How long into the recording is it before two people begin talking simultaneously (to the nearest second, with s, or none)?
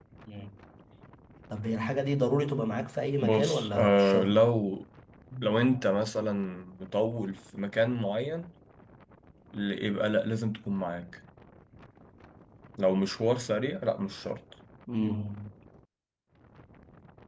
3 s